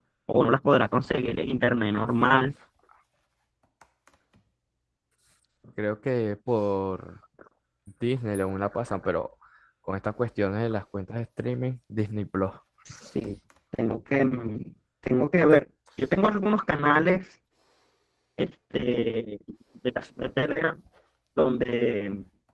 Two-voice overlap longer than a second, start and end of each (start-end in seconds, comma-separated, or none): none